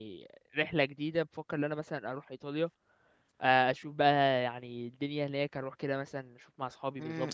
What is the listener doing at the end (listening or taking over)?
taking over